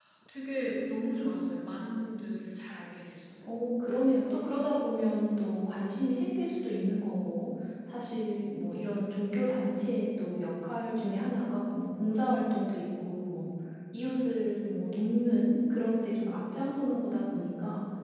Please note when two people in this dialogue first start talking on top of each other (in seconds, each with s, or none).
none